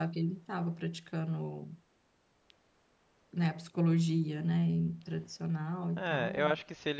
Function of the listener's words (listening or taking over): taking over